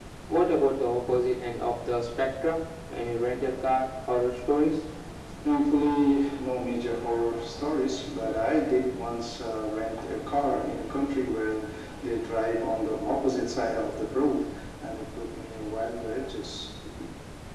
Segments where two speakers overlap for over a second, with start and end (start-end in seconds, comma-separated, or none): none